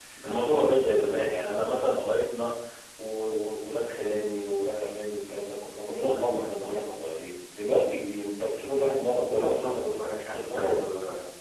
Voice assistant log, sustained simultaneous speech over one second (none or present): present